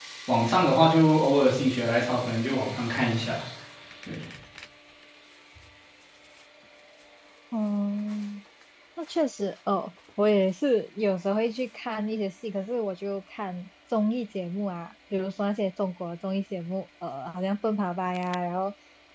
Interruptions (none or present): none